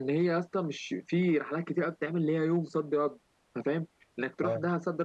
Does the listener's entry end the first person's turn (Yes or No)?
No